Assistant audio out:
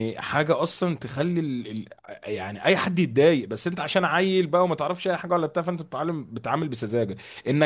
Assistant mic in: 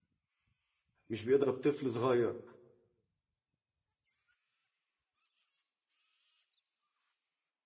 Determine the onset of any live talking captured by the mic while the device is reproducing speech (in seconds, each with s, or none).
1.1 s